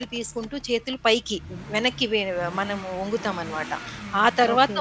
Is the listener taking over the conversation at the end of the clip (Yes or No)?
No